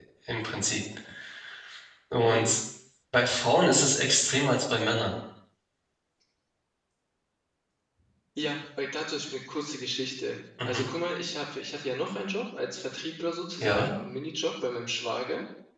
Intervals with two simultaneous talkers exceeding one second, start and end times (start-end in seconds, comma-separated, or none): none